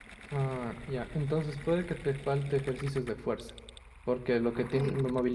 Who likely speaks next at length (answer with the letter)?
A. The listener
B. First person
B